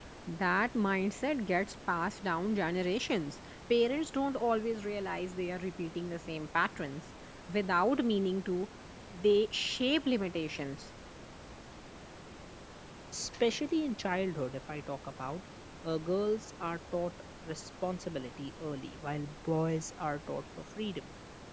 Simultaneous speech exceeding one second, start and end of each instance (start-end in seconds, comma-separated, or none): none